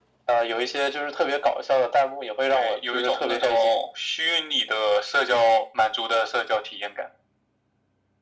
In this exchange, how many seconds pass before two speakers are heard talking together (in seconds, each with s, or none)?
2.5 s